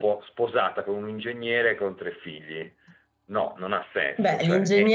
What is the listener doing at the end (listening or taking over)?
taking over